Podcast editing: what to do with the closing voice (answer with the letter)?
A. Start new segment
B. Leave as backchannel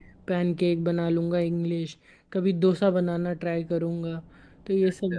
B